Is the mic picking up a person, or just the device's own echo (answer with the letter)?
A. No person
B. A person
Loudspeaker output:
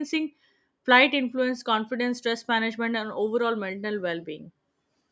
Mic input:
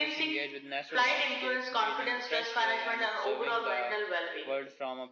B